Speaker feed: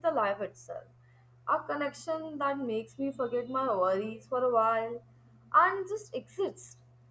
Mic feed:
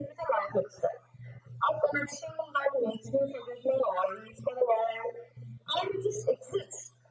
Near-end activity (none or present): none